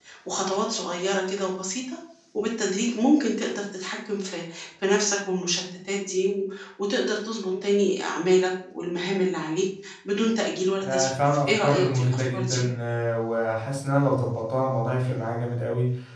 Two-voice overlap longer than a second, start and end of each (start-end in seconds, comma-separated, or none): 10.8-12.6